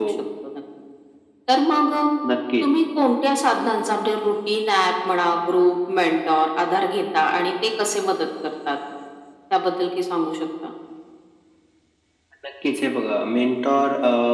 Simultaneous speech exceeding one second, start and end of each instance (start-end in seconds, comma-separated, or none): none